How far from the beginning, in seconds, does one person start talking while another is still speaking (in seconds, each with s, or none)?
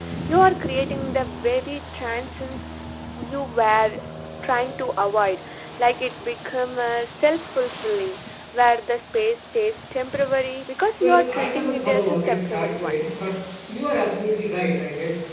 11.0 s